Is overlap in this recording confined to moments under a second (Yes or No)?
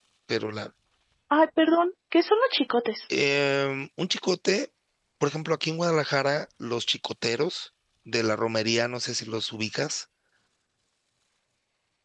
Yes